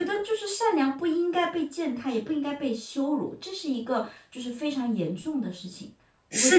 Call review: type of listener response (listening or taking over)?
taking over